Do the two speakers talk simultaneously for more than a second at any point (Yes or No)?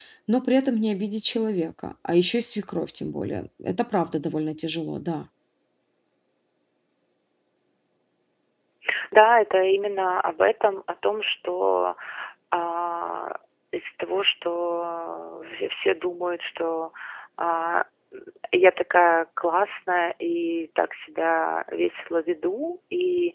No